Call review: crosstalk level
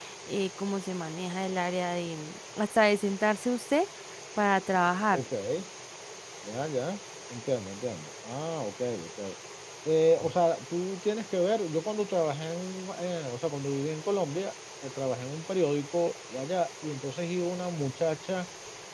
none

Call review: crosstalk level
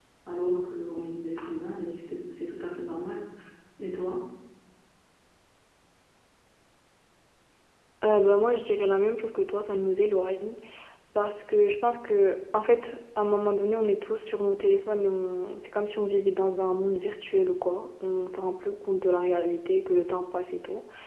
none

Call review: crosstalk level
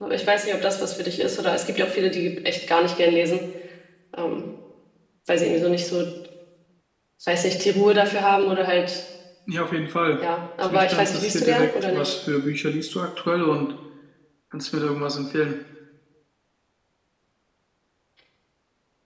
present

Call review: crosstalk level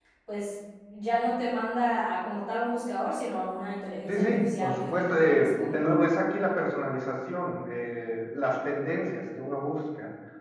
present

